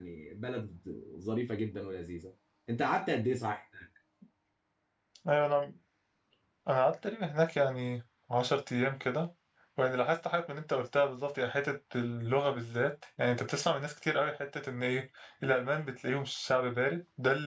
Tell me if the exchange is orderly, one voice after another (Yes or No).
Yes